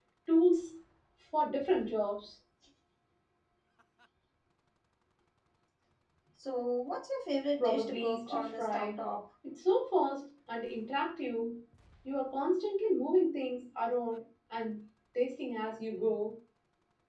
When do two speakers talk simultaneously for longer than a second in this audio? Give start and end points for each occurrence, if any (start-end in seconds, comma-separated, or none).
7.6-9.0